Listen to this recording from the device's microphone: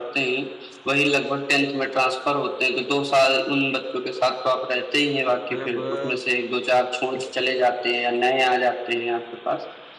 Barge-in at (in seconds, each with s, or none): 5.5 s